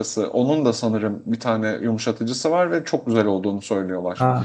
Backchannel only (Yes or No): No